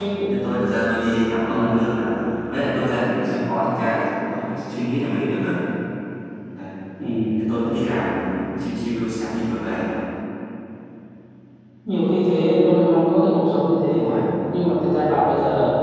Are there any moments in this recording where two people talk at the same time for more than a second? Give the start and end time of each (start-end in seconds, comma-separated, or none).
none